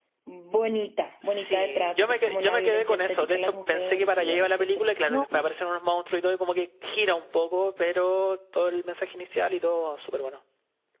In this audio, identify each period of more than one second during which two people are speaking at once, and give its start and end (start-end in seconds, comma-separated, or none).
1.2-5.3